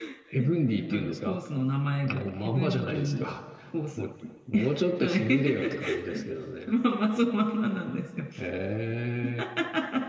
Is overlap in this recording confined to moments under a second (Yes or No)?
No